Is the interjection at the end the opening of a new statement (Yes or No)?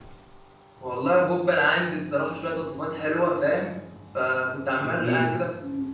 No